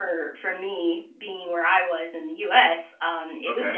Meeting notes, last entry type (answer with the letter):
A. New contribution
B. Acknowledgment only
B